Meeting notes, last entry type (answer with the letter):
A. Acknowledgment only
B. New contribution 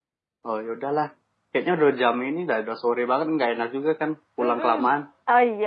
B